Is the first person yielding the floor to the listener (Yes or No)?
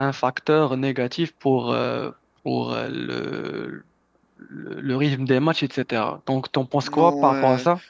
Yes